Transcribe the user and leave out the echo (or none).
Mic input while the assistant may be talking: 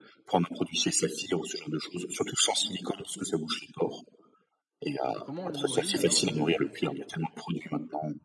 et comment on le nourrit alors le le cuir?